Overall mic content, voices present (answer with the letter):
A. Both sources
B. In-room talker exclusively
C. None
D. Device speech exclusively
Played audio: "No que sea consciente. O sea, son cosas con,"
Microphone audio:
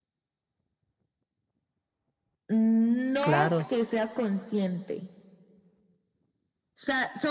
A